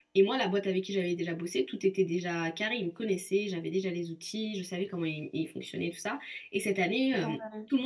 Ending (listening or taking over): listening